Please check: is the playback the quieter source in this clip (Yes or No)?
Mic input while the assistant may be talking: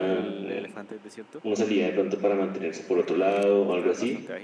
No